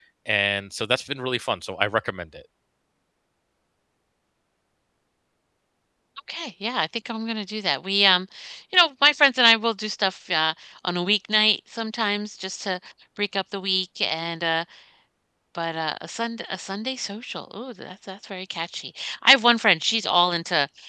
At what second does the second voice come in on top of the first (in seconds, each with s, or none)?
none